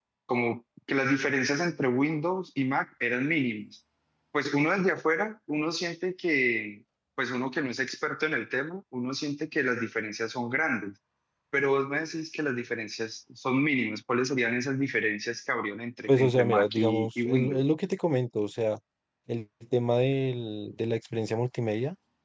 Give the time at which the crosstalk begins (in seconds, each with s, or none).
16.1 s